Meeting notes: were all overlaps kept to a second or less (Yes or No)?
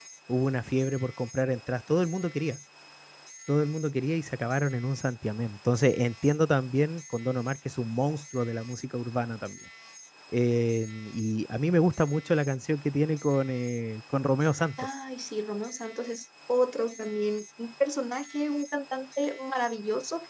Yes